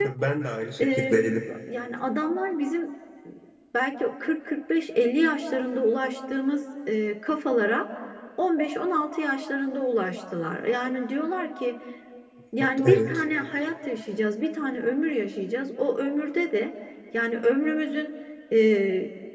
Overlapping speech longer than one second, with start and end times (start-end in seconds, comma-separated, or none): none